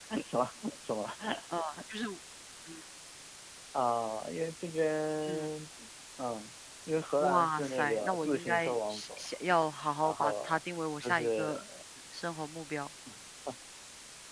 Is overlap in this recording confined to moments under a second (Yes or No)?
No